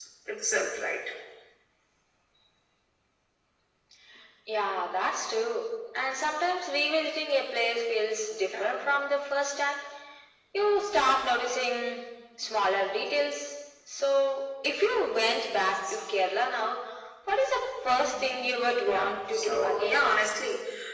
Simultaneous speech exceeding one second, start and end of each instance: 18.8-20.0

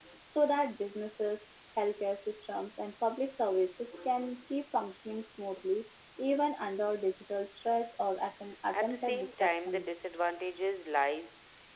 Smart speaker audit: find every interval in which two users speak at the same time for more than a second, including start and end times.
8.7-10.0

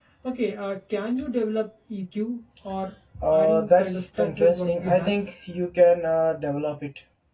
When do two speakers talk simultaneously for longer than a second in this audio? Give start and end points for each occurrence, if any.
3.3-5.1

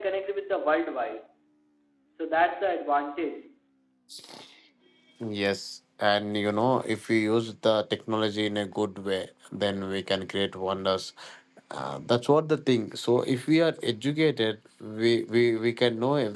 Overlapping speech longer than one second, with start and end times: none

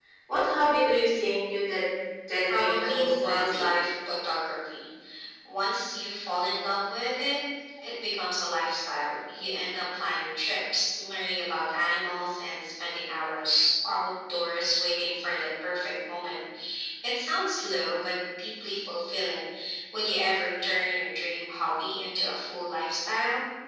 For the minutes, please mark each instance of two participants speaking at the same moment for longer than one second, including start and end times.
2.5-3.7

